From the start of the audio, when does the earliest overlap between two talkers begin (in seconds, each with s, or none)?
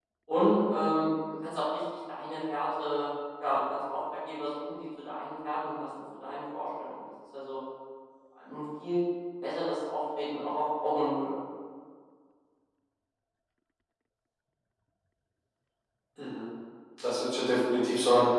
none